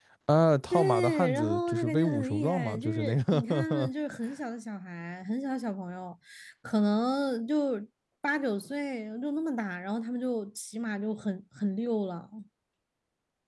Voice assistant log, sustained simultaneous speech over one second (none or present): present